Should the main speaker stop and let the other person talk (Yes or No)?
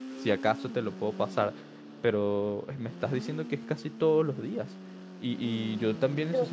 No